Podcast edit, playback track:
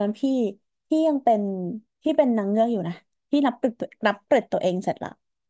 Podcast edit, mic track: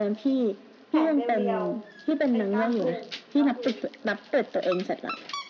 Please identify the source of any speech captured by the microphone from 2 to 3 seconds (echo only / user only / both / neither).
both